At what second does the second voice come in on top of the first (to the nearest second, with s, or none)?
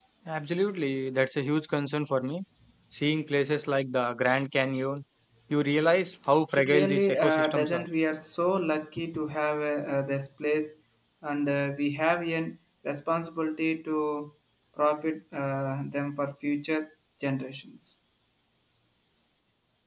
7 s